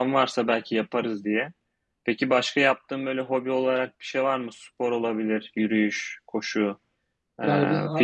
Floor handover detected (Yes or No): Yes